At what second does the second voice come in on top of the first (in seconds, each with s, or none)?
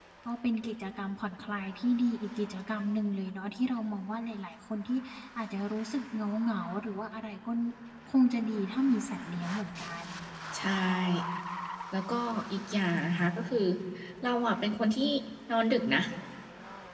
none